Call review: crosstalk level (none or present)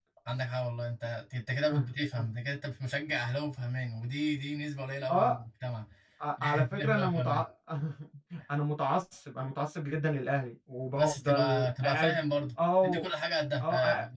present